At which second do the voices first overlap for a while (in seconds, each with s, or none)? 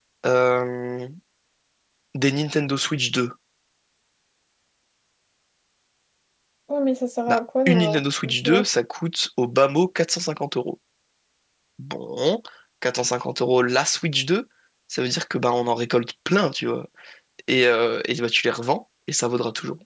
7.3 s